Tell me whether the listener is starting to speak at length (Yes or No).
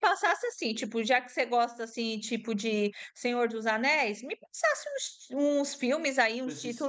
No